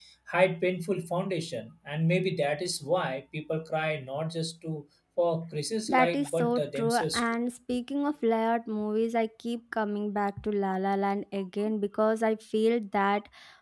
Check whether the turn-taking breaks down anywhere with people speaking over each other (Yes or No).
Yes